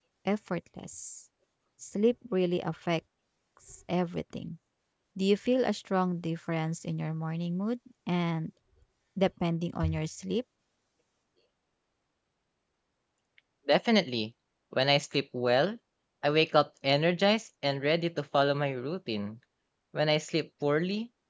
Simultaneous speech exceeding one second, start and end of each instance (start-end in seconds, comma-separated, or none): none